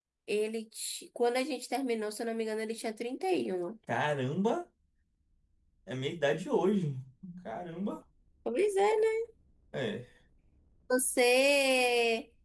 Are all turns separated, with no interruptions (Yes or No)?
Yes